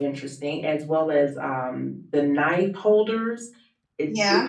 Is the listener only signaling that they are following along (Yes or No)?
Yes